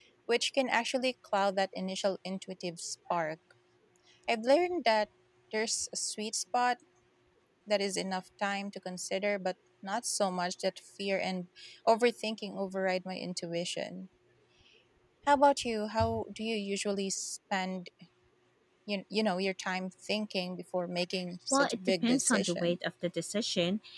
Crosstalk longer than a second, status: present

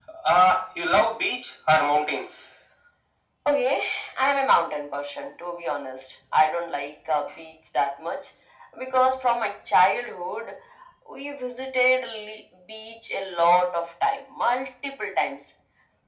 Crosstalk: none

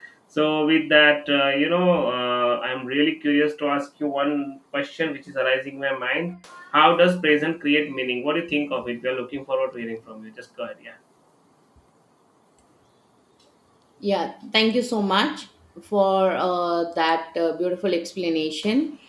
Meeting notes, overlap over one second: none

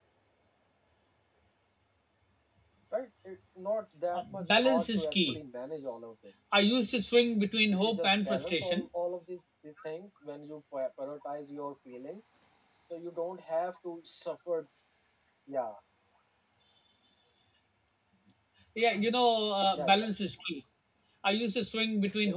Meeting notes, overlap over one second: present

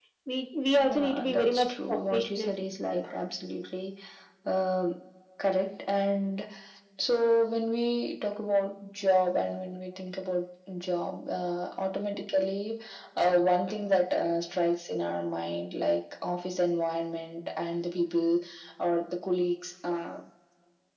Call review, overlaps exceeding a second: present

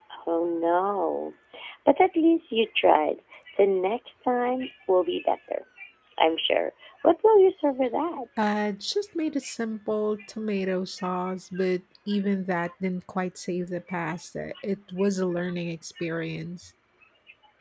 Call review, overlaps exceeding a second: none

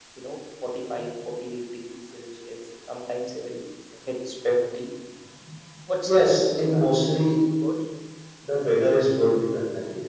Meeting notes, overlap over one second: present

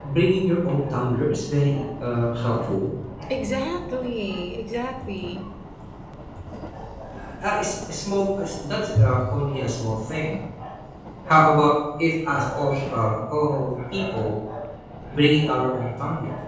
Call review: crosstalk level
none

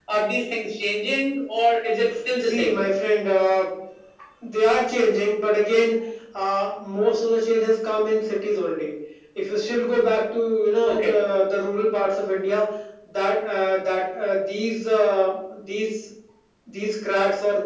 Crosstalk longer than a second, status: none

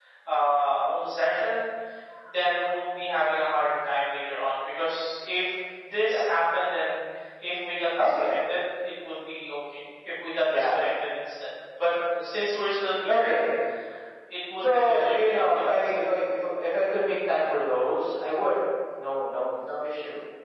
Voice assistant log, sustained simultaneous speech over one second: present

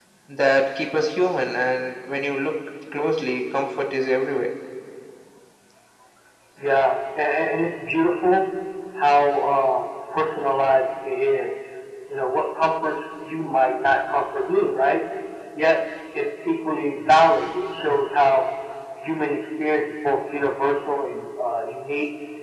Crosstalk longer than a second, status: none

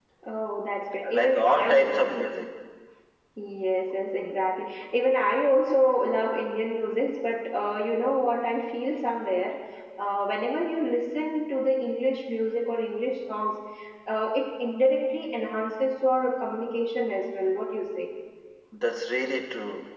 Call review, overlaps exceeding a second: present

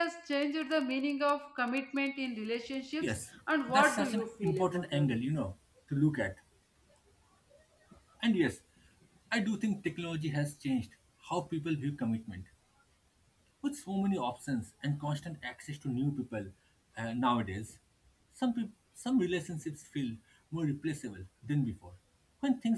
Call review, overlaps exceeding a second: present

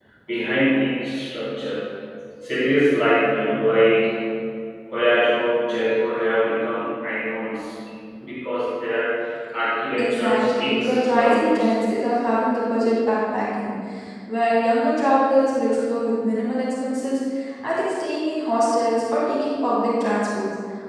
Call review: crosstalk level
present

